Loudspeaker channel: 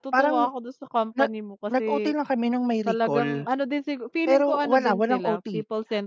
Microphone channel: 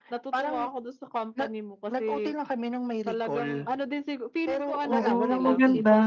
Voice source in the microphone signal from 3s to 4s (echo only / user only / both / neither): echo only